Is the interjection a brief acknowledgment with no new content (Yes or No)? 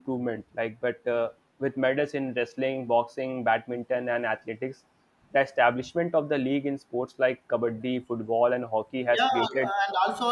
No